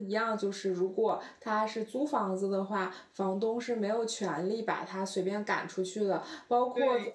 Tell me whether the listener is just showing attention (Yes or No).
Yes